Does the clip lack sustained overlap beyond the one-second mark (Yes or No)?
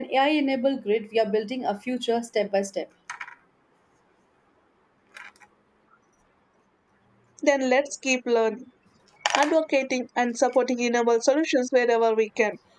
Yes